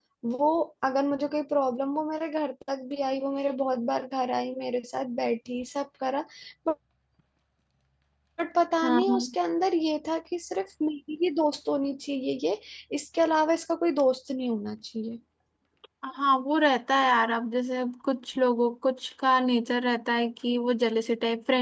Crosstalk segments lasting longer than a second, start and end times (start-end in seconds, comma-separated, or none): none